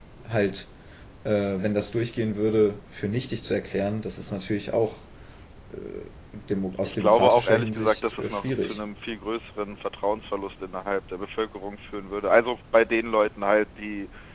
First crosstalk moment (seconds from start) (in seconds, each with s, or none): 6.8 s